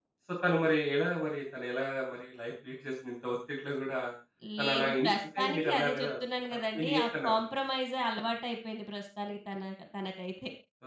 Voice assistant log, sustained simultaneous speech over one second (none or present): present